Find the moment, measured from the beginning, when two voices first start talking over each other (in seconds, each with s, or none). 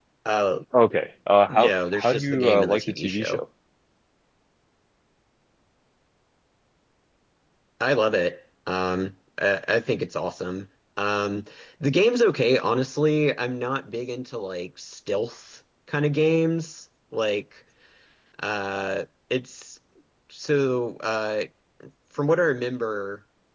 1.5 s